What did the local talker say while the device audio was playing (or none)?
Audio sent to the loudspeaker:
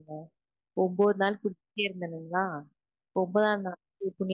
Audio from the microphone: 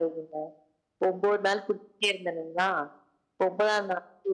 none